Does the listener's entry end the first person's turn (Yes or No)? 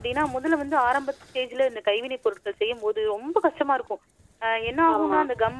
No